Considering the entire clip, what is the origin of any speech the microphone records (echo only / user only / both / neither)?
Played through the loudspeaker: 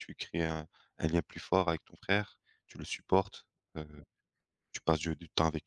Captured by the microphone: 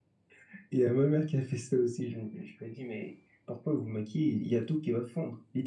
user only